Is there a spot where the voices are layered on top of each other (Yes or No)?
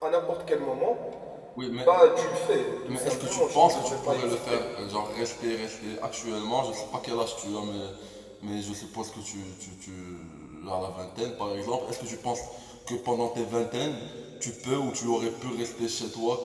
Yes